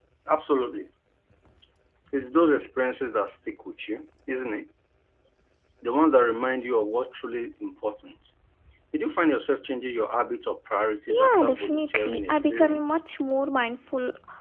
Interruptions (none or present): present